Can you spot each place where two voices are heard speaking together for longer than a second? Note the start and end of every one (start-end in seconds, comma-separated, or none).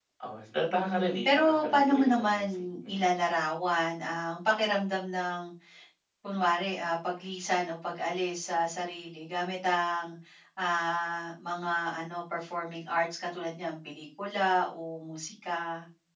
0.7-3.0